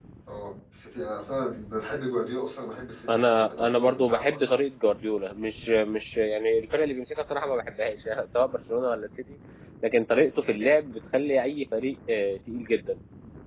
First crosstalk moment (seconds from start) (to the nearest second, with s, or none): 3 s